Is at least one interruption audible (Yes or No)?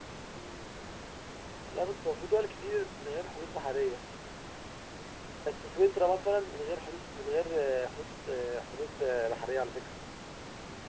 No